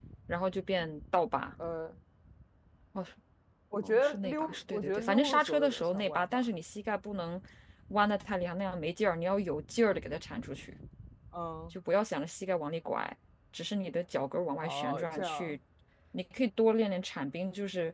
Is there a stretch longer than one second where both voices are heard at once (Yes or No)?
Yes